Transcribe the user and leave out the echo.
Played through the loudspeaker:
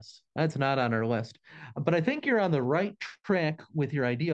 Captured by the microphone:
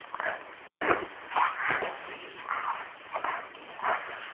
none

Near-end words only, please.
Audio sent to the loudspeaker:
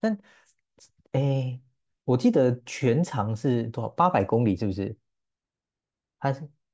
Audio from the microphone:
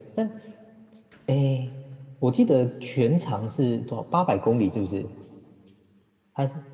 none

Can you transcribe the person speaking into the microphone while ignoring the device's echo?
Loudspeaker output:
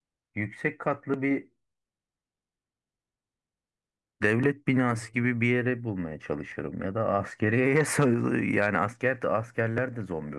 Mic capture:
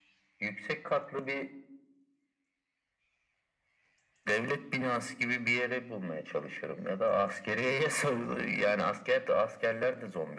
none

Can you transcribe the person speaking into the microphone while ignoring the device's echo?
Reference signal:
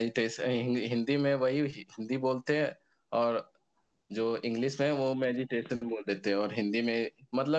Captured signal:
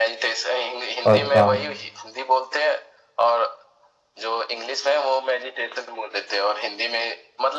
अच्छा

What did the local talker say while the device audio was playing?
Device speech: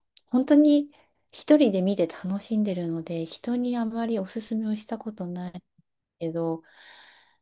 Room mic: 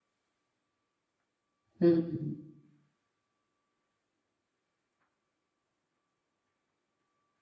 うん、うん、

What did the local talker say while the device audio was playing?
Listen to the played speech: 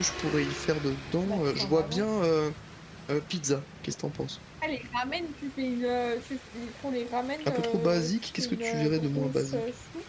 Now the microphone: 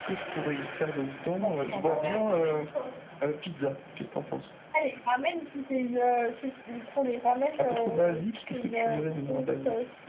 Ah ouais, ramène-toi.

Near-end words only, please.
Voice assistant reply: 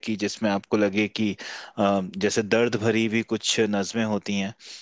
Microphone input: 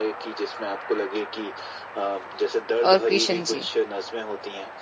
और कृष्ण जी

